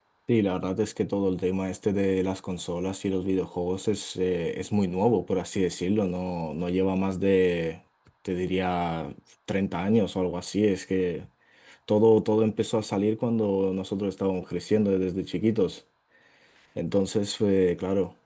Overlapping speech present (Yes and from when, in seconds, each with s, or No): No